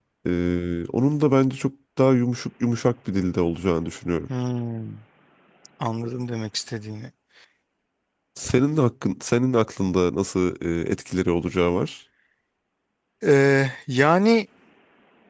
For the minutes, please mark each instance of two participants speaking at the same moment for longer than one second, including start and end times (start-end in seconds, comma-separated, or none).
none